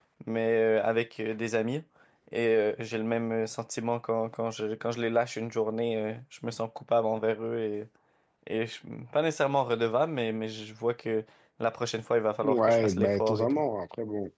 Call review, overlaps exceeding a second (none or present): present